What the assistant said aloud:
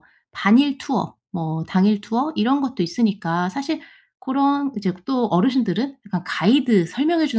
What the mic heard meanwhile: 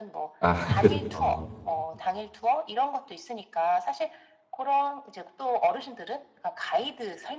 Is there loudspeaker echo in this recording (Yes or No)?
Yes